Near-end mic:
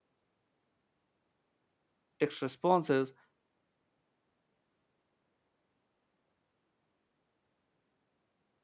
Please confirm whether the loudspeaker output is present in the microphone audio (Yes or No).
No